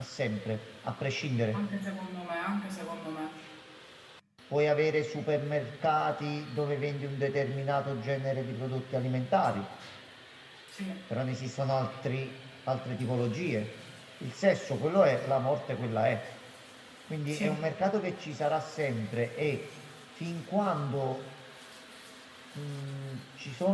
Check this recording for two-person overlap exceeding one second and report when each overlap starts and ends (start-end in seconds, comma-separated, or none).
none